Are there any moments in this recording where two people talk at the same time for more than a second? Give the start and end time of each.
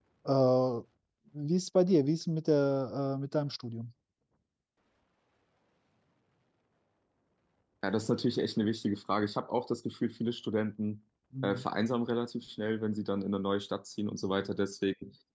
none

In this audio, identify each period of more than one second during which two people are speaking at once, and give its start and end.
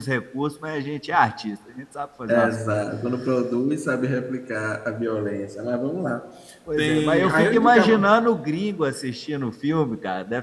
6.8-8.1

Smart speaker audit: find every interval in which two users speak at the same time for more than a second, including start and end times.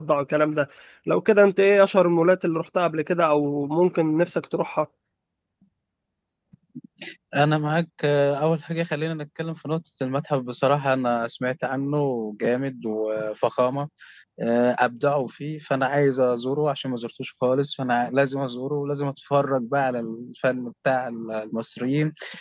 none

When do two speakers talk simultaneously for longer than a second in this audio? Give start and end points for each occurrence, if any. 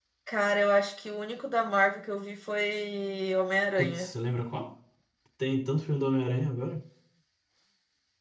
none

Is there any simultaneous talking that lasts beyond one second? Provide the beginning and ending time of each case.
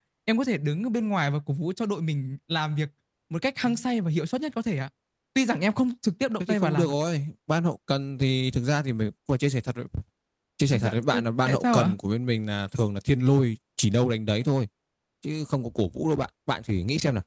10.7-11.9

